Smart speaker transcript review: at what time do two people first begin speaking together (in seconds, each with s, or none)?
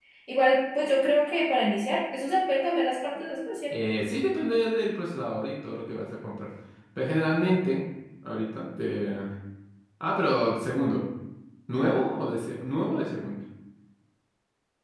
none